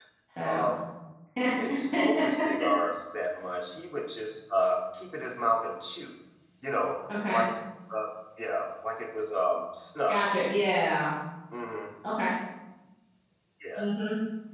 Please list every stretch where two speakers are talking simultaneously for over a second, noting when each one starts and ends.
none

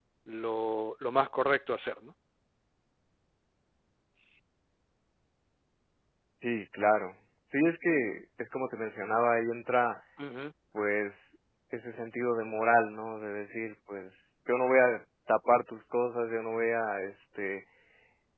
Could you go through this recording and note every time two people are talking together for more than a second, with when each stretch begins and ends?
none

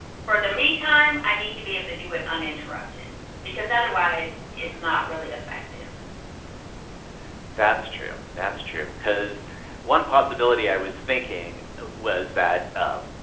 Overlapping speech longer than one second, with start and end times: none

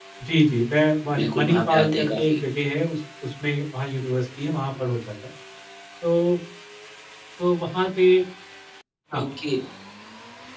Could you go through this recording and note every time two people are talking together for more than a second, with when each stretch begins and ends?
1.2-2.4

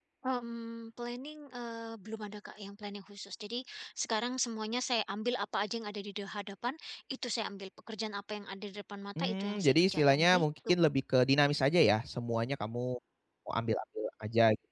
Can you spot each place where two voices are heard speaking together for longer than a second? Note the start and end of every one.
9.2-10.7

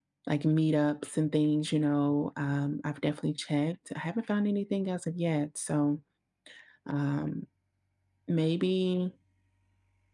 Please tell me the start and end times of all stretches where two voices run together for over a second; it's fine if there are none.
none

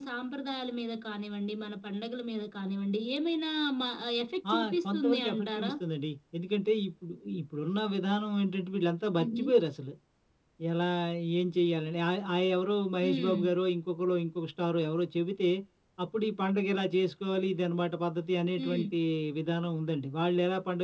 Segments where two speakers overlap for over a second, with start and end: 4.5-5.7

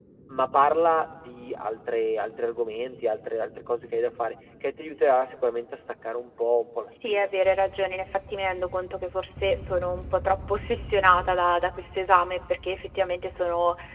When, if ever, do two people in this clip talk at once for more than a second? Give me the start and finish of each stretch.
none

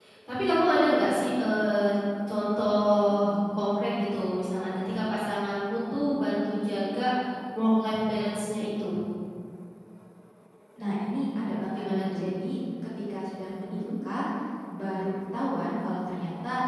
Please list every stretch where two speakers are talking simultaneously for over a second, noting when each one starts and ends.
none

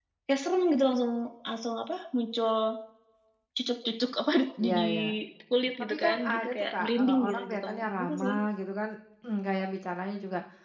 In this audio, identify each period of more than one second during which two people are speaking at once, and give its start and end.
5.8-8.3

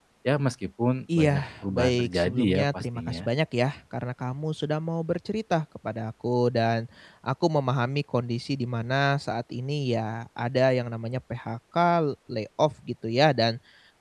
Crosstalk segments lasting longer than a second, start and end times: 1.1-3.3

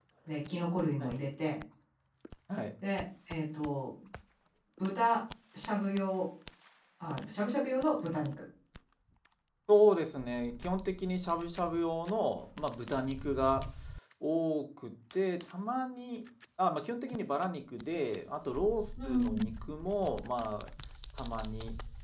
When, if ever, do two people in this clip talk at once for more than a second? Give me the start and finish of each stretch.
none

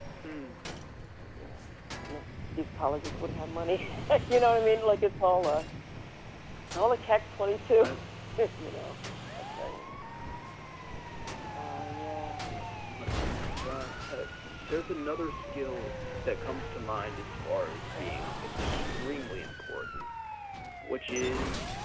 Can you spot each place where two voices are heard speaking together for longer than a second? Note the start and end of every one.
none

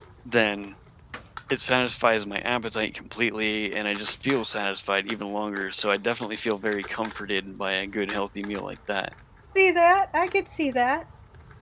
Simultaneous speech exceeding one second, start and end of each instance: none

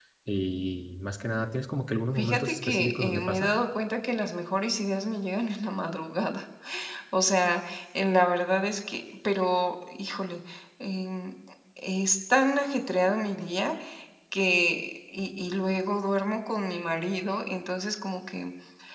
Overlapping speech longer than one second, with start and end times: 2.2-3.5

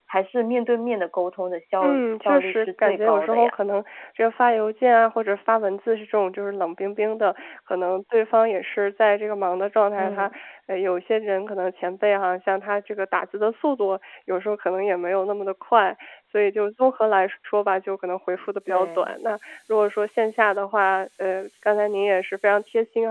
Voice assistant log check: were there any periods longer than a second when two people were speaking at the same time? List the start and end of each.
1.8-3.5

